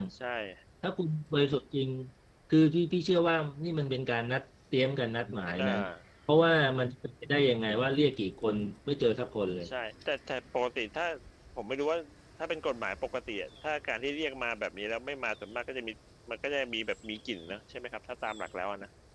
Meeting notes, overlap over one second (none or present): none